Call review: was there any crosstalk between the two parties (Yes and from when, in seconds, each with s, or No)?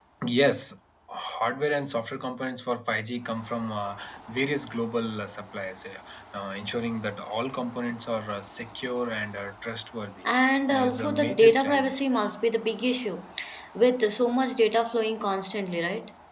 Yes, from 10.7 s